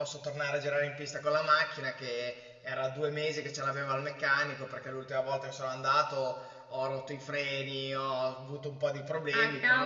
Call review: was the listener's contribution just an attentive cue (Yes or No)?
No